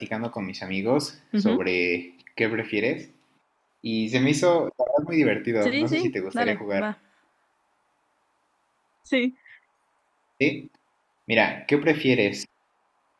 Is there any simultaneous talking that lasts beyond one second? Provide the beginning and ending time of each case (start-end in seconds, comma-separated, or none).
5.6-6.9